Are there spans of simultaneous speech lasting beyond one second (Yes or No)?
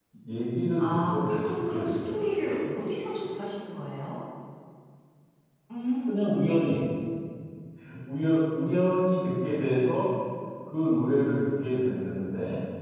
Yes